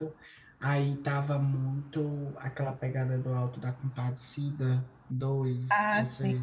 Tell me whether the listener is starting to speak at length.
Yes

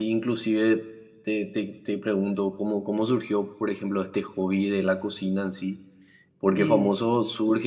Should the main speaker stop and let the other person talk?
No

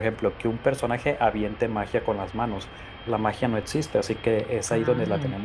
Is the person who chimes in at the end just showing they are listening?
Yes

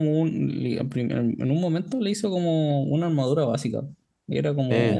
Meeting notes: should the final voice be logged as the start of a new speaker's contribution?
No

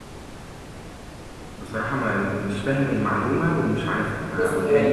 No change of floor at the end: No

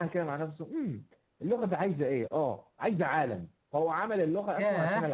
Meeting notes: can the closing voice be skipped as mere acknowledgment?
Yes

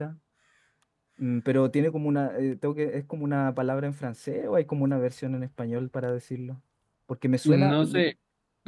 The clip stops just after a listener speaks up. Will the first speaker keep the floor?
No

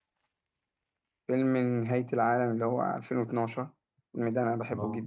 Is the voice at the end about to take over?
Yes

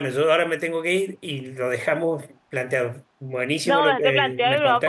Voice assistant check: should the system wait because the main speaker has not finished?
No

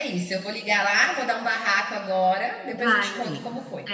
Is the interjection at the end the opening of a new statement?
Yes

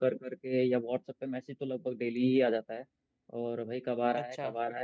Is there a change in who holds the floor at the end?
No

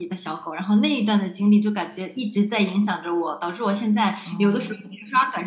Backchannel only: Yes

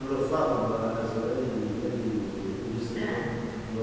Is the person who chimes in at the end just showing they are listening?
Yes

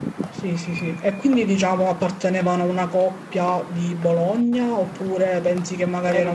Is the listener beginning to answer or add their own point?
Yes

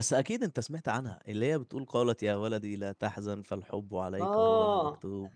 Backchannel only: No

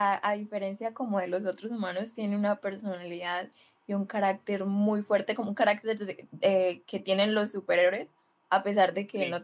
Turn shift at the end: No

